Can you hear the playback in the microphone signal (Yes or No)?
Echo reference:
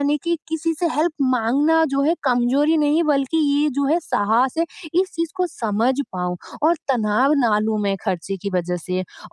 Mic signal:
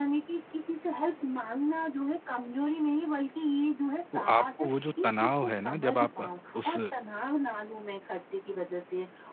Yes